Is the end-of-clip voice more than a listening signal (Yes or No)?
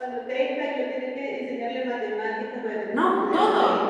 Yes